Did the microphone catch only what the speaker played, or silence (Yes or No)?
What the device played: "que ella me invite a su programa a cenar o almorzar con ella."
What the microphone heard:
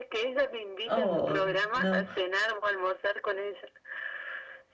No